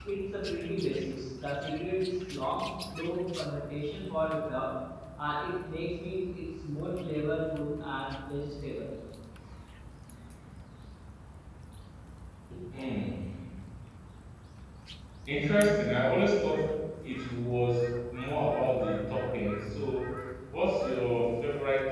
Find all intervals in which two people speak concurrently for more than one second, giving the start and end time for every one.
none

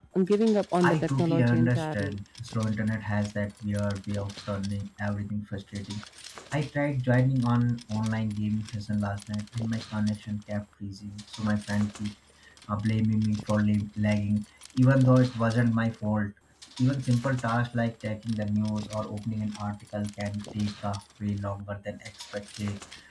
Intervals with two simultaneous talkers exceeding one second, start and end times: 0.8-2.1

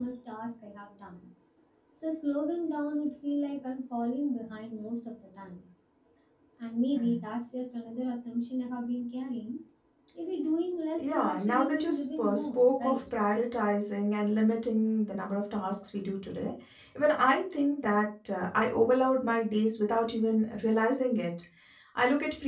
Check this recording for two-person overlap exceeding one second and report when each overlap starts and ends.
11.0-13.0

